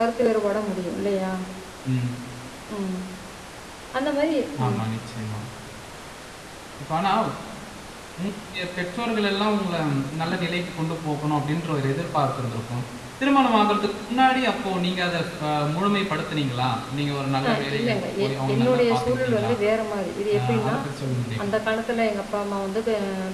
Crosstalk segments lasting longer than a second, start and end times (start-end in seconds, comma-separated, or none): 17.5-19.5